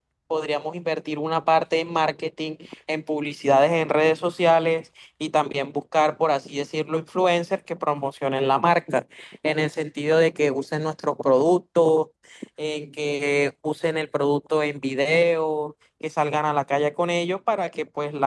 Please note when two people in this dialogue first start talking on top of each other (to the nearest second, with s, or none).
none